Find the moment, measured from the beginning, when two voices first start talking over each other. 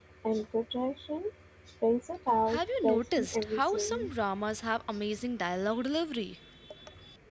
2.5 s

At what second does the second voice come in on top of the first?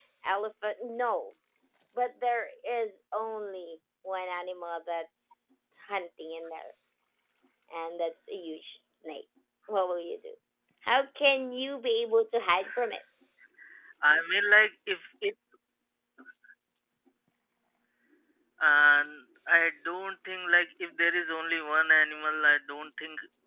none

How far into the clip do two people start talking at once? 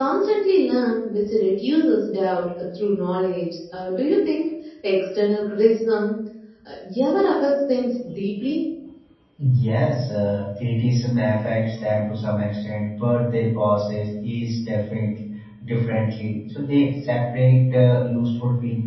none

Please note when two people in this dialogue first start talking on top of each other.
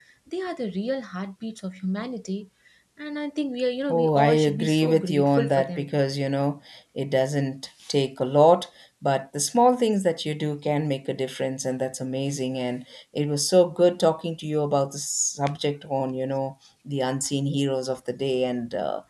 3.9 s

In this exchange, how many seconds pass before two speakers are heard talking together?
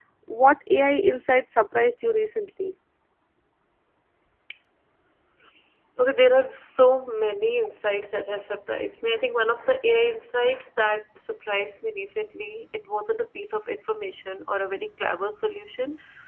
none

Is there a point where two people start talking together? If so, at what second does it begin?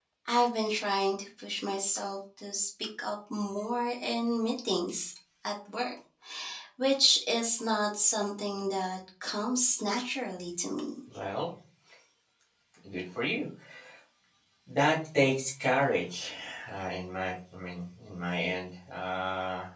none

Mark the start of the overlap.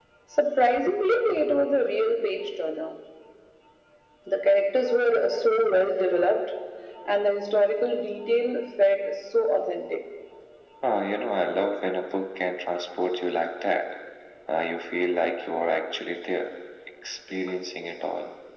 none

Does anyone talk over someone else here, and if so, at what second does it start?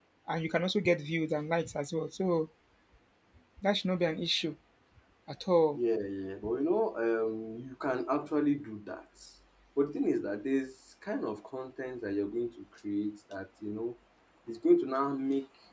none

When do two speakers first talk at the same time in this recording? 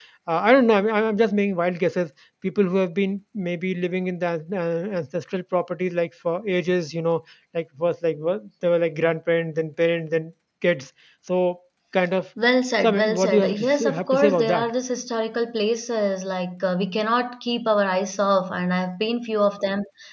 12.8 s

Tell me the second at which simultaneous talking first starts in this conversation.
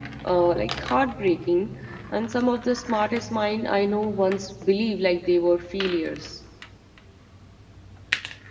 none

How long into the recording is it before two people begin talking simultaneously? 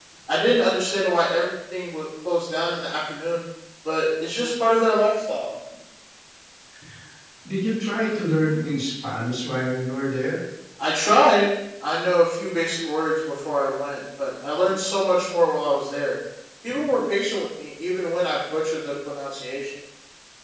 none

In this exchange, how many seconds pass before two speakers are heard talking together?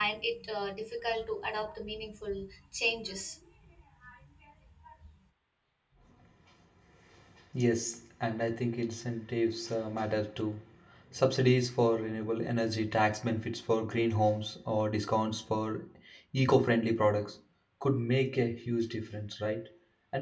none

